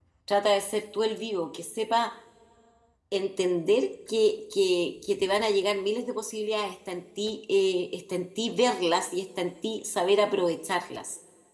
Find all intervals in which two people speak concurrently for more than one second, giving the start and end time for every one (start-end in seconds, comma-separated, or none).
none